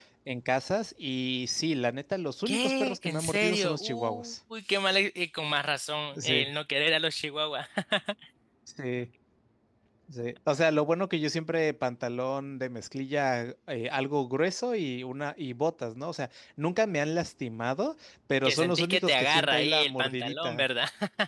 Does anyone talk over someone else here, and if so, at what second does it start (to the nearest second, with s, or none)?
2 s